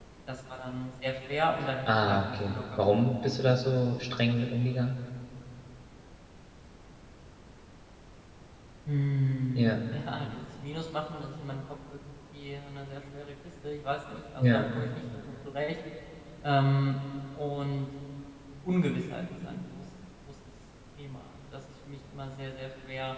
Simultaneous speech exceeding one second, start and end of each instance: 1.9-3.6

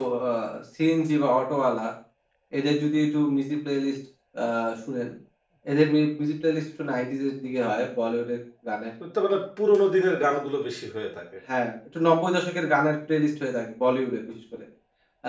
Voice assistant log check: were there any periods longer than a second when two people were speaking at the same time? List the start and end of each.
none

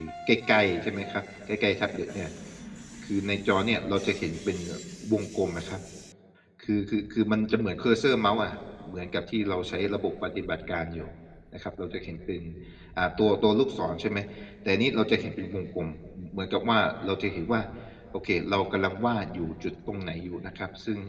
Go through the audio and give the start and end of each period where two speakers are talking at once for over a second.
none

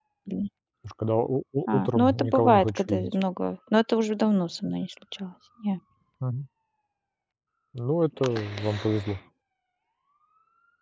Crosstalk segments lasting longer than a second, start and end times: 1.7-3.1

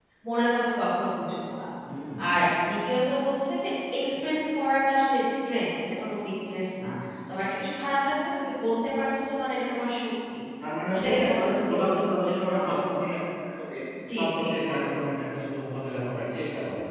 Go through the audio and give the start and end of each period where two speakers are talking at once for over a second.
10.9-12.7

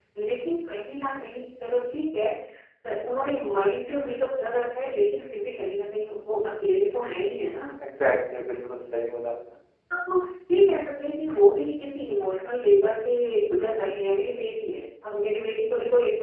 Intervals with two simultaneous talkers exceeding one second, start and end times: none

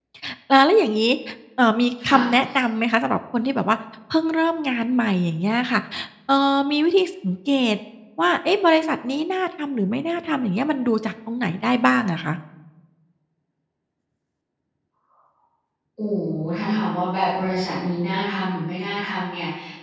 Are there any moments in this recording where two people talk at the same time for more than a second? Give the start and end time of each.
none

